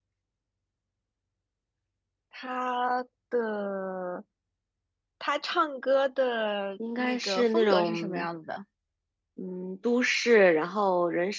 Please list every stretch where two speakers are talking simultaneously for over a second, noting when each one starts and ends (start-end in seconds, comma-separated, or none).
7.0-8.3